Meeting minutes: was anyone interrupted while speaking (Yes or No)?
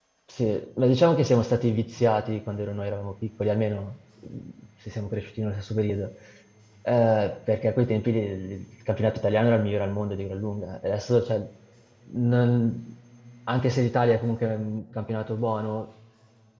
No